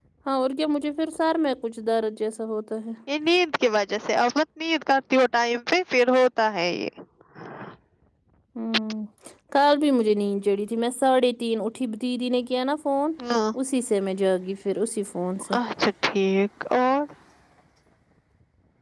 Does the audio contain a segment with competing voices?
No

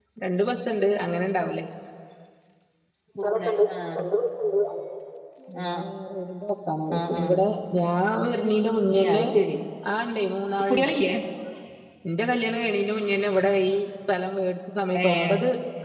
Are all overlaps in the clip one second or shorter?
Yes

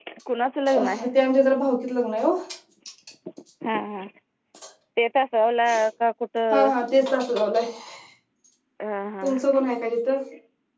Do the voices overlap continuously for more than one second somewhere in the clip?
No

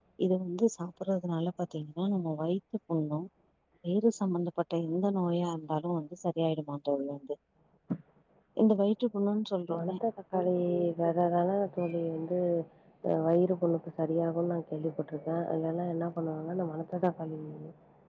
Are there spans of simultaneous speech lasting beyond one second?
No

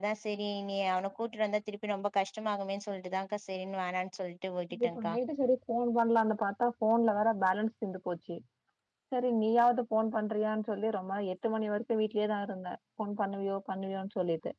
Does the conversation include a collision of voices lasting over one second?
No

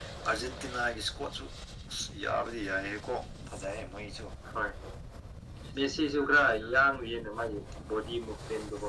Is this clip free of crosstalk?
Yes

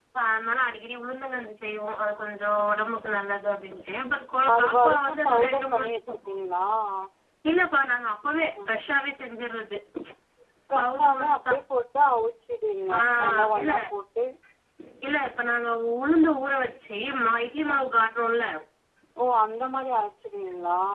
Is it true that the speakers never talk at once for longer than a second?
No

